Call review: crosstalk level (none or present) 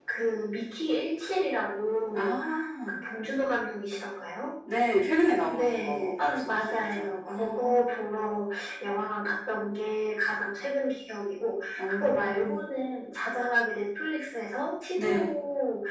present